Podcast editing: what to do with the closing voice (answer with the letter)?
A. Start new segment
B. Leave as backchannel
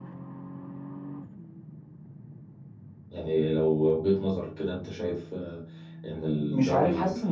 A